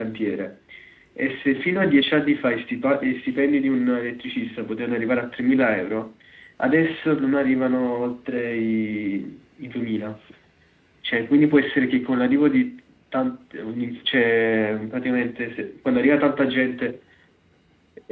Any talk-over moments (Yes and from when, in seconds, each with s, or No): No